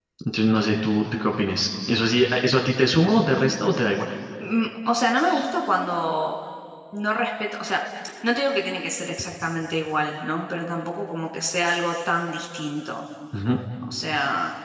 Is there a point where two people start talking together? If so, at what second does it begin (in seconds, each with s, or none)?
none